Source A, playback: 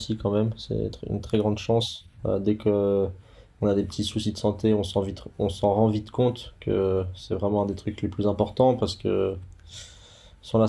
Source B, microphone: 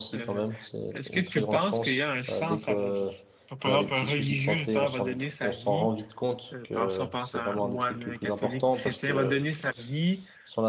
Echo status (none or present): present